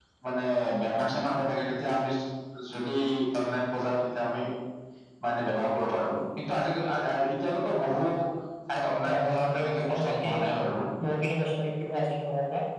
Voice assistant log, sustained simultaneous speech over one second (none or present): present